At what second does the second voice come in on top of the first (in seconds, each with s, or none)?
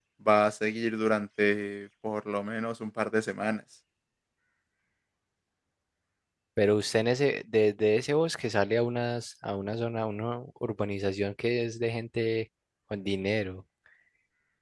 none